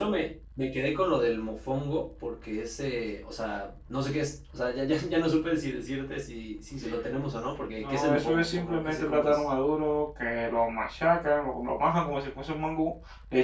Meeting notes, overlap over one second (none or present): present